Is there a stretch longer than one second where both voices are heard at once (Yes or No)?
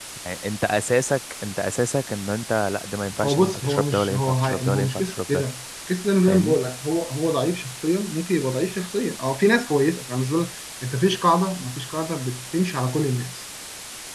Yes